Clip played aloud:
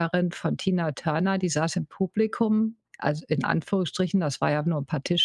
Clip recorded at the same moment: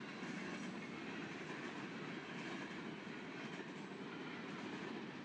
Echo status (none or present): none